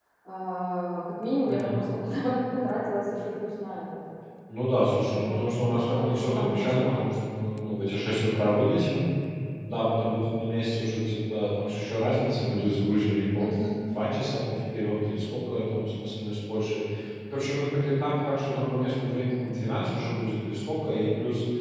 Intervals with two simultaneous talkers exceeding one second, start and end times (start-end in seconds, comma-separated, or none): 5.0-7.1